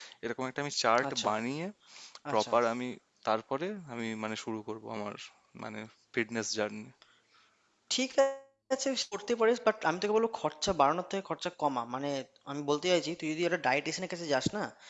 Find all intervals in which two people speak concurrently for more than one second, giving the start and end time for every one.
none

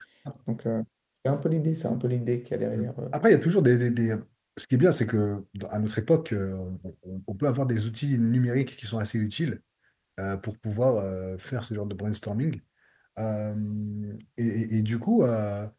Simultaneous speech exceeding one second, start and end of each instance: none

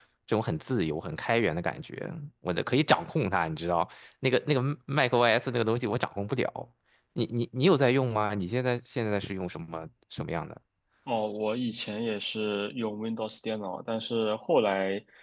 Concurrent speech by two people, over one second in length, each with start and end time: none

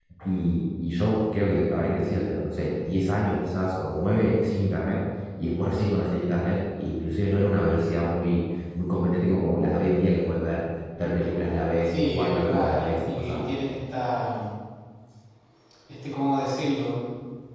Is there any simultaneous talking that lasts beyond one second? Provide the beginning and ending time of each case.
11.8-13.5

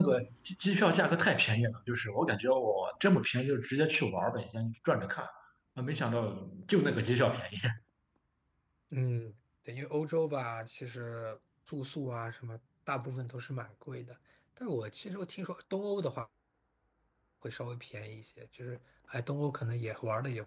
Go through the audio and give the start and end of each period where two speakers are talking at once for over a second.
none

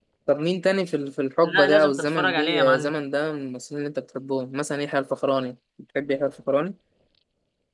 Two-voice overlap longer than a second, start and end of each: 1.4-2.9

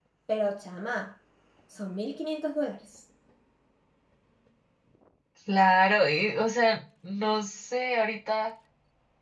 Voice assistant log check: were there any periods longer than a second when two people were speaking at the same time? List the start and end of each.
none

